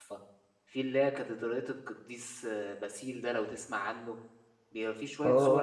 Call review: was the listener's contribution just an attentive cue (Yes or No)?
No